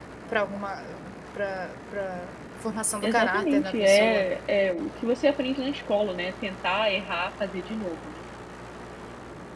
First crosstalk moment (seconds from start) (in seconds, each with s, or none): 3.0 s